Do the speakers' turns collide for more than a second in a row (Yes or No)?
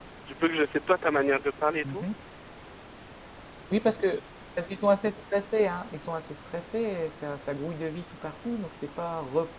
No